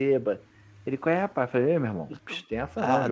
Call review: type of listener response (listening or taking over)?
taking over